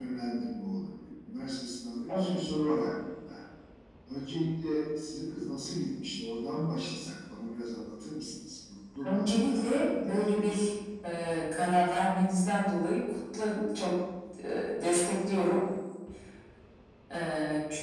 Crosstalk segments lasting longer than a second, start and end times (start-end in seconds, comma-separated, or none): 9.0-10.6